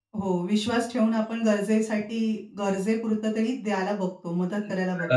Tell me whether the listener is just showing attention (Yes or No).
No